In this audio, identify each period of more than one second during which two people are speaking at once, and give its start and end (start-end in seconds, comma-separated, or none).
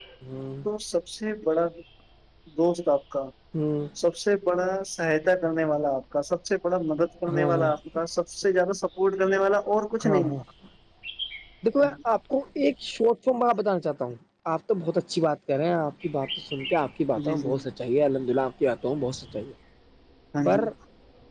none